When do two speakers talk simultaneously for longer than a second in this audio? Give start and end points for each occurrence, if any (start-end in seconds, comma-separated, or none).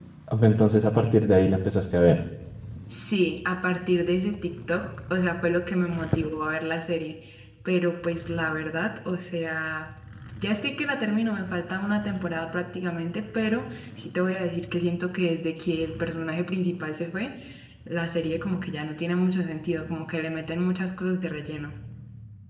none